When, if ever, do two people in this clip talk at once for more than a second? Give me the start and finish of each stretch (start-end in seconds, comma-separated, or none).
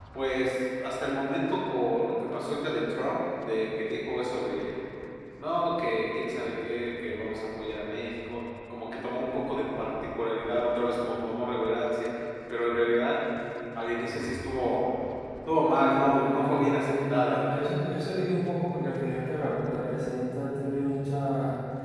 16.0-17.4